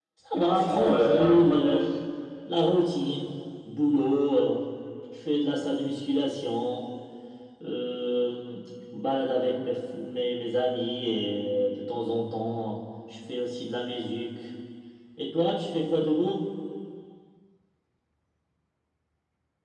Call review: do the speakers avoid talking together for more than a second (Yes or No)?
No